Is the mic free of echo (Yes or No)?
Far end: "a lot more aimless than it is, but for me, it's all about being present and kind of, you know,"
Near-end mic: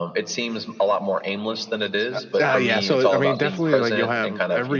No